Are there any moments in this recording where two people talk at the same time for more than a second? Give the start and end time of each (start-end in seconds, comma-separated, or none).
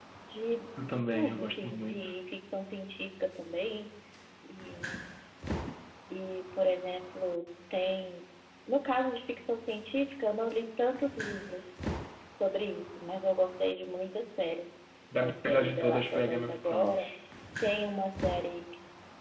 0.9-2.1, 15.2-17.1